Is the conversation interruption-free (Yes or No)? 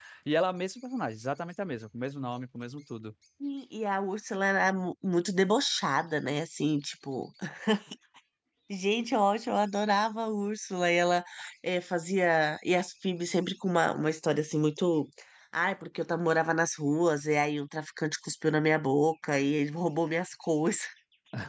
Yes